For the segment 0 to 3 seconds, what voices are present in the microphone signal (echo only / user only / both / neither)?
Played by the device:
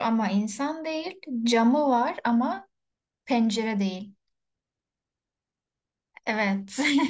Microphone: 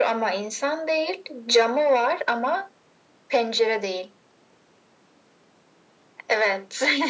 echo only